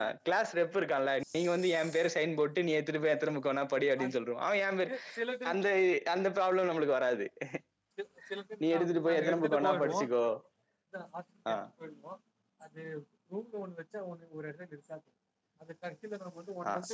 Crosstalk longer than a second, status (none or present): present